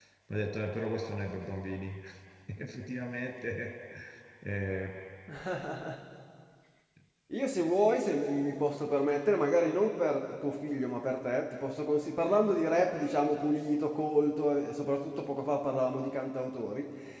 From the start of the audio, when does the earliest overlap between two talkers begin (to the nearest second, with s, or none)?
none